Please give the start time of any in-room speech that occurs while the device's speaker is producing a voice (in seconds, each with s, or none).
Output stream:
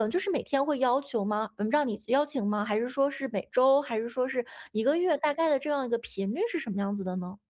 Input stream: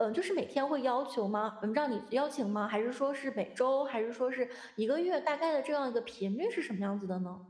none